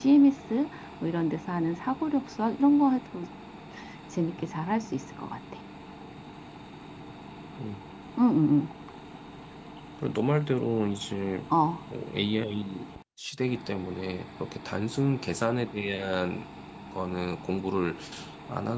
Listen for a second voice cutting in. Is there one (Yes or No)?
No